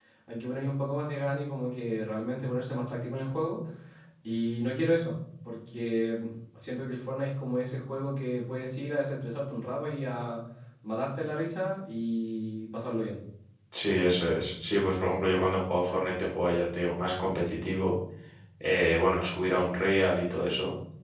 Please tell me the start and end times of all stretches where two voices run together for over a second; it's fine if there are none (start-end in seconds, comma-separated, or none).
none